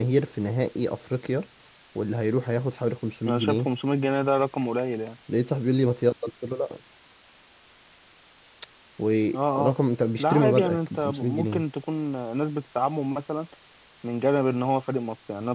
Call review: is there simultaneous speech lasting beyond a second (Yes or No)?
Yes